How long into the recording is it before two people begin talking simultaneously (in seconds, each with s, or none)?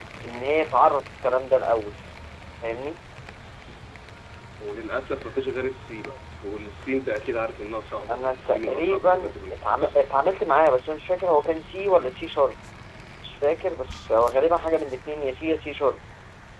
8.1 s